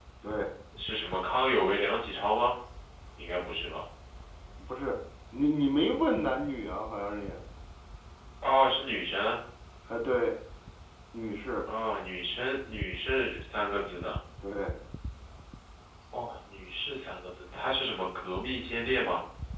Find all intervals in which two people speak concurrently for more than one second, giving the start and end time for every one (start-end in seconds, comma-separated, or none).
none